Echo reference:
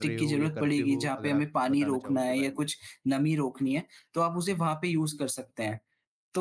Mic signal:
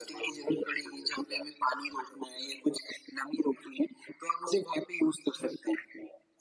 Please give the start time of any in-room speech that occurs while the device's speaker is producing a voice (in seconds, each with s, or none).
none